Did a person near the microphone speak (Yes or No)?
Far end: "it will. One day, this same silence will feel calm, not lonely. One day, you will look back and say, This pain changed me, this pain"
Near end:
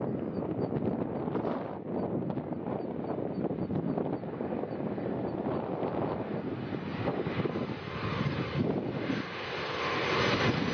No